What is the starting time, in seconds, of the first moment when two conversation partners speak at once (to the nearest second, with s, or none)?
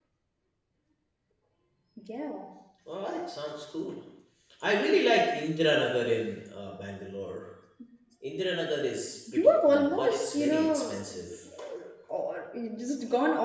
9 s